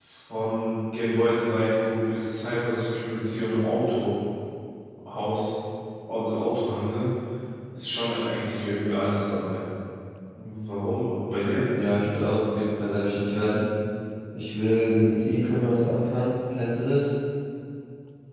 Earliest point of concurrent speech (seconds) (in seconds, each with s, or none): none